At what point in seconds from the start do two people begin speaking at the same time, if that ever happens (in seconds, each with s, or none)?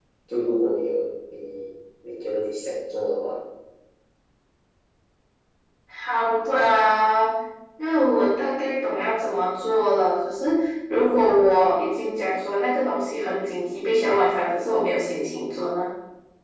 none